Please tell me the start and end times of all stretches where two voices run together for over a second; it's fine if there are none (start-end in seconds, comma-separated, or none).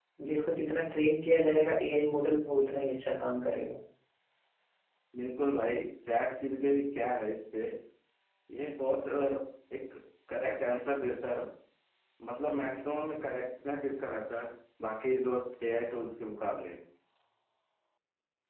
none